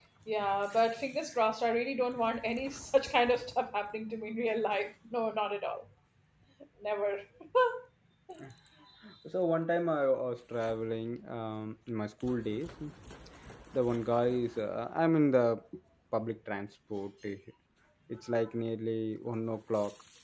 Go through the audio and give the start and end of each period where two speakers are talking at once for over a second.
none

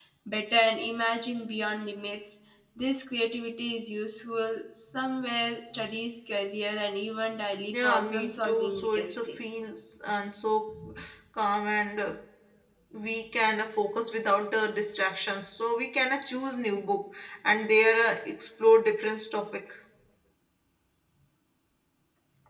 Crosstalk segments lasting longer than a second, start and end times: 7.7-9.3

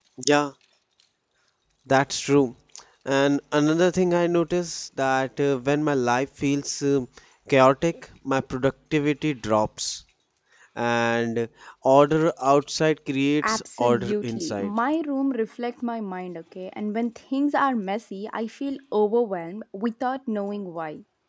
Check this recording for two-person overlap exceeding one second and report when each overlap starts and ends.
13.4-14.7

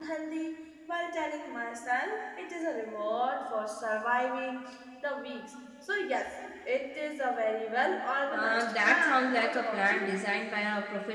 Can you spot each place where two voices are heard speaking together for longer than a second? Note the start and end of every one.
8.3-10.2

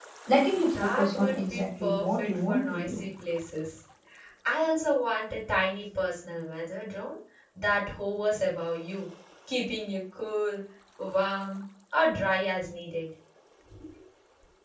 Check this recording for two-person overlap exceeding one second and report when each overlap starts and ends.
0.7-3.0

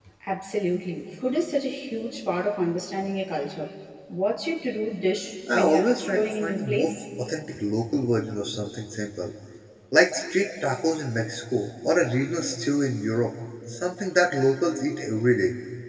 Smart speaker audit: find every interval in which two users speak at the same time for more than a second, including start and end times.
5.5-6.9

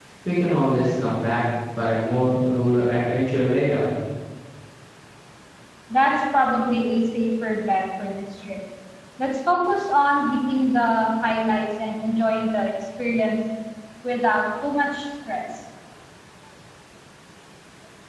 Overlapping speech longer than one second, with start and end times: none

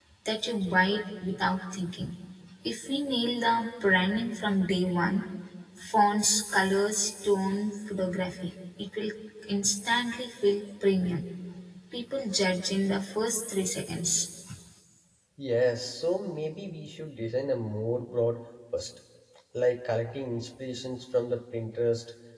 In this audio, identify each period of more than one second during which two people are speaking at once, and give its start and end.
none

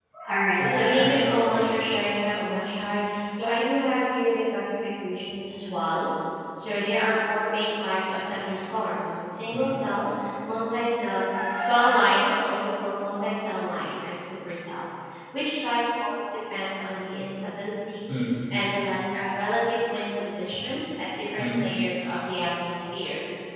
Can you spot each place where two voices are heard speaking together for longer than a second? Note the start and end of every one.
0.5-1.7

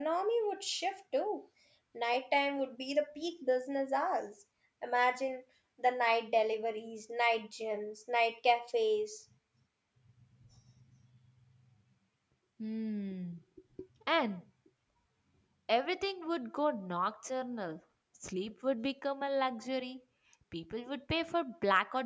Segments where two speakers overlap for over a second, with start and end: none

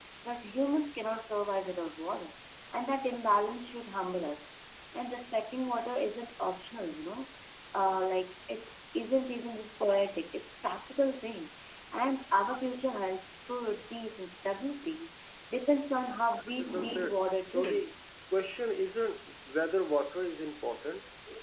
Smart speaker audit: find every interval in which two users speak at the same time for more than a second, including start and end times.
16.6-17.9

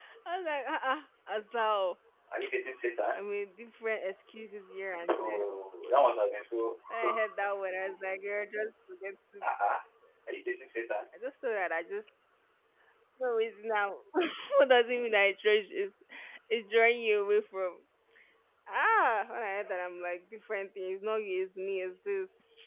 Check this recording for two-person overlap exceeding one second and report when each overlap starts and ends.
none

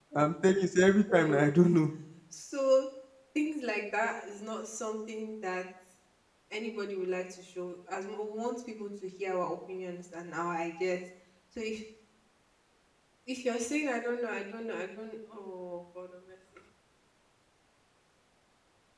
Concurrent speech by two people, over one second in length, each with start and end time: none

